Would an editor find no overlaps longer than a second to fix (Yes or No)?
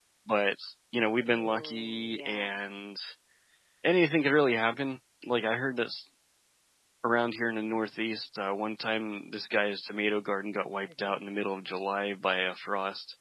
No